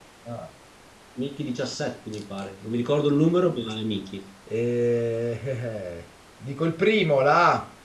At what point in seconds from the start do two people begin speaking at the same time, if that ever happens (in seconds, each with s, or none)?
none